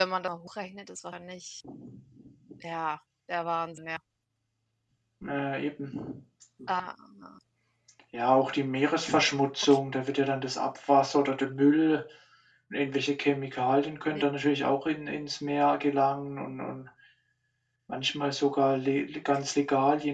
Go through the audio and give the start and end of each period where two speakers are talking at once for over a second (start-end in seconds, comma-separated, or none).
none